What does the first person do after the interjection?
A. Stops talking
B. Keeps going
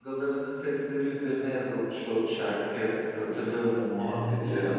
A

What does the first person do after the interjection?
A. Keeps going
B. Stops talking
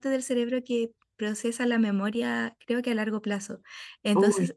A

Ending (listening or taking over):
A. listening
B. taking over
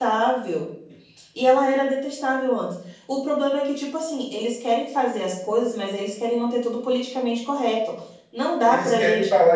B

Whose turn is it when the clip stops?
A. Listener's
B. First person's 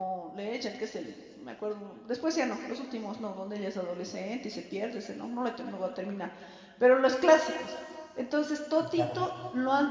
B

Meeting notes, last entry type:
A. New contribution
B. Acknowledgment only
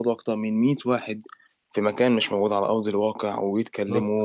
A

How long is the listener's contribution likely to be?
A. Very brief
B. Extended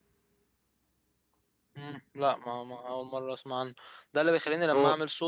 A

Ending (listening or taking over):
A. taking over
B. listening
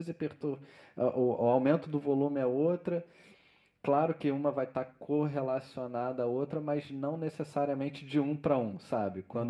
B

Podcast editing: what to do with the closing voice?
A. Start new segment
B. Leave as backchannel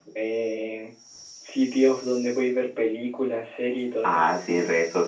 A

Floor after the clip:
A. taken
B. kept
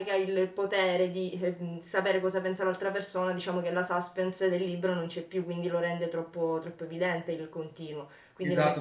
A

